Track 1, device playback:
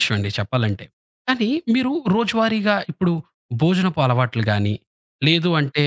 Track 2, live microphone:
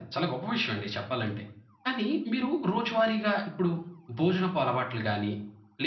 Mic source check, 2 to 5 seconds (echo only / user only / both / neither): echo only